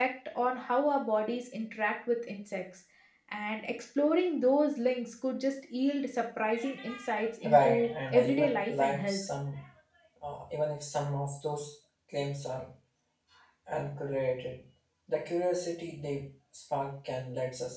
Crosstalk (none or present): present